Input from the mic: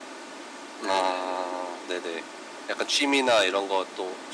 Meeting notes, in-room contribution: present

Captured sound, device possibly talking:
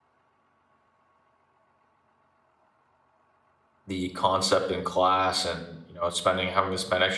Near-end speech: present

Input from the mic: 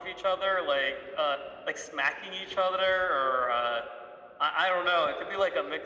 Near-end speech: none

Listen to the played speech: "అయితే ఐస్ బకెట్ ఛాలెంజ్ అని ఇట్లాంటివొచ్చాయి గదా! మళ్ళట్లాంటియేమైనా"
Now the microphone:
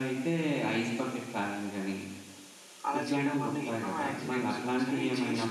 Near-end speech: present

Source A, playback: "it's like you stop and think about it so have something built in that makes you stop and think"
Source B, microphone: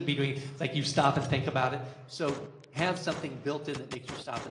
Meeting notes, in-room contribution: none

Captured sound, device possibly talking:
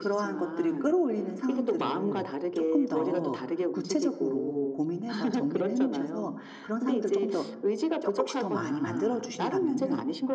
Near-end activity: present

